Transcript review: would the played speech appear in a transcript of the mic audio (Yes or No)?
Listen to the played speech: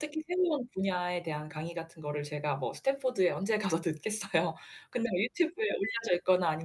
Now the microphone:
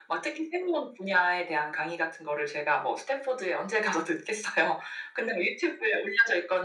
Yes